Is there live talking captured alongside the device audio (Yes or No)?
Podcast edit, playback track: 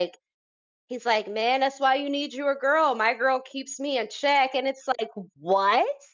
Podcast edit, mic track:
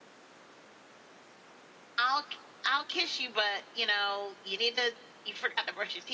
Yes